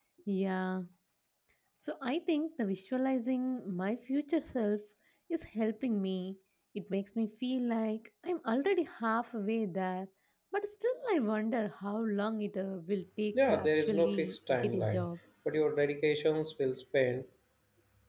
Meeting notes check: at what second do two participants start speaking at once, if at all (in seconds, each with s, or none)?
13.3 s